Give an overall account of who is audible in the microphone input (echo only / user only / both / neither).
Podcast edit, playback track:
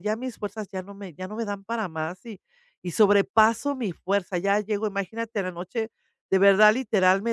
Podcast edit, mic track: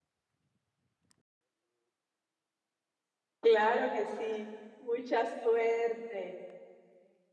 user only